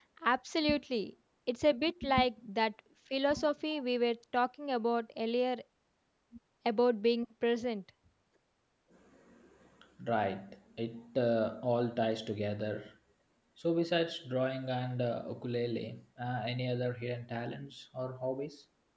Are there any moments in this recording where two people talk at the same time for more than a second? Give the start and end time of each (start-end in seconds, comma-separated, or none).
none